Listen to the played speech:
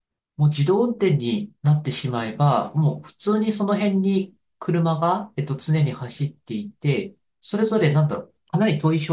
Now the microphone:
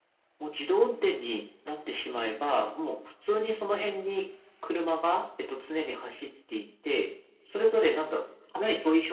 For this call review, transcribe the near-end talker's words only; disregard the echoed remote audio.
none

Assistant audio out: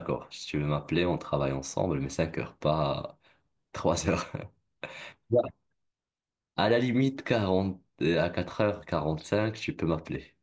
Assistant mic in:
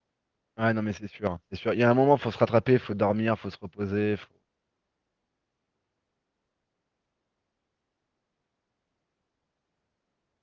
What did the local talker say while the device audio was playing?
Ouais, non, mais c'est sûr, hein, c'est sûr. Il y a un moment, faut se rattraper, faut dormir, faut se reposer. Faut...

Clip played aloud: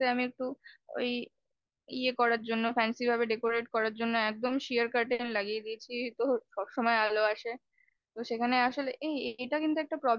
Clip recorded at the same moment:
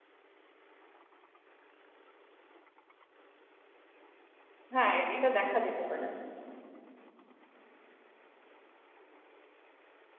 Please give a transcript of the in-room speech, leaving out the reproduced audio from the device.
হ্যাঁ এটা দেখা যেতে পারে

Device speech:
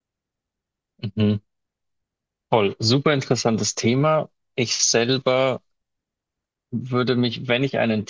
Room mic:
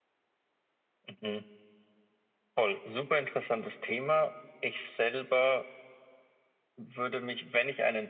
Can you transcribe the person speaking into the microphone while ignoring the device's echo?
none

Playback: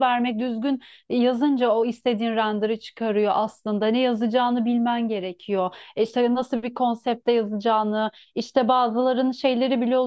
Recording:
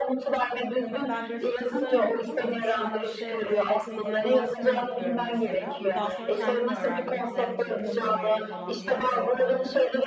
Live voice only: ben grafik tasarım okudum ama şu an işte e, 3D animasyon yapıyorum mesela. Daha sonra kendim öğrendim Blender'ı, işte Maya'yı falan diğer programları.

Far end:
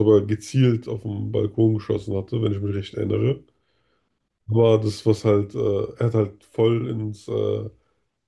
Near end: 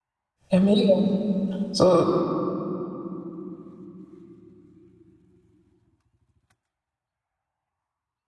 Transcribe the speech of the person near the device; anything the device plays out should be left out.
ja, mega. So,

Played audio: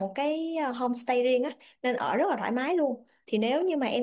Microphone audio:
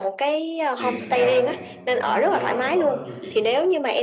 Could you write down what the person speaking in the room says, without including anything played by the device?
tiền nó cao không chị? Thường dao động cỡ bao nhiêu chị?

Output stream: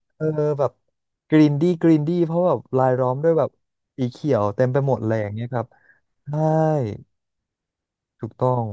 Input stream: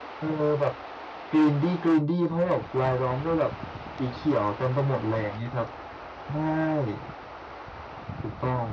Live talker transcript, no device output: none

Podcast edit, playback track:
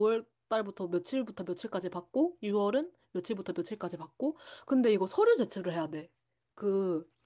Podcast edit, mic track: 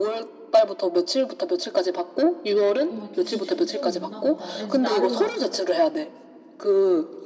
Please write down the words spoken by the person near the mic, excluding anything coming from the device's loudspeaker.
어, 이렇게 기준이 좀 있나 보다. 그래서 나름 막

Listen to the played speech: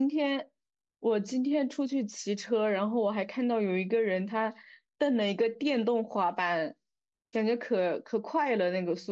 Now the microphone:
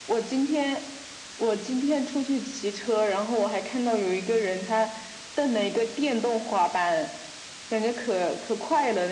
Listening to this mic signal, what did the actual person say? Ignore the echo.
none

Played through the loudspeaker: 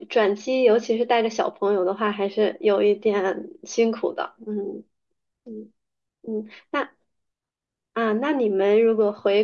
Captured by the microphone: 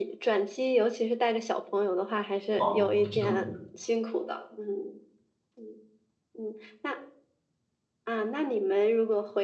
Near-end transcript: 哦，这样子。

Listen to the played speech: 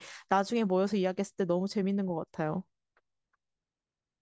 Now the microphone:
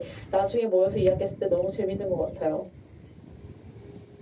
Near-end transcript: none

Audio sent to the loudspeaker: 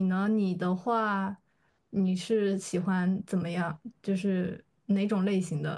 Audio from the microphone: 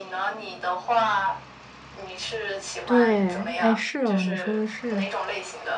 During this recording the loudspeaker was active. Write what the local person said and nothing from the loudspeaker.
对，哎，是哦，你说的是，

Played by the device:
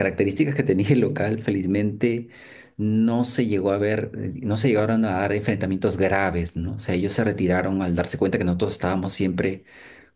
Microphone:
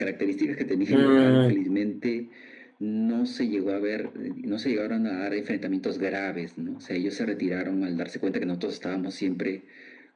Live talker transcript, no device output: mm,

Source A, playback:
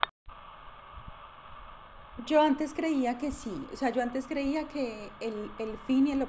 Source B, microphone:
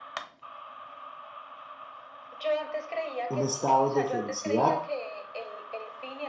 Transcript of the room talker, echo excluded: un estado de felicidad

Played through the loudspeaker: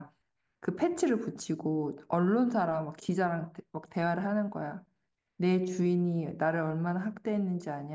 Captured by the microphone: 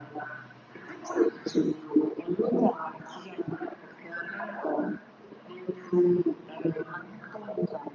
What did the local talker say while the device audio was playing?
none

